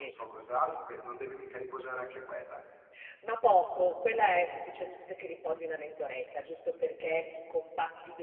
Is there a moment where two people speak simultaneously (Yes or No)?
No